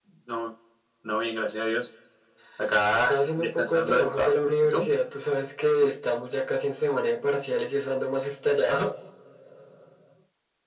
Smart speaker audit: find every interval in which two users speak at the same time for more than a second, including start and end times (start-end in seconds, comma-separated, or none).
2.9-4.9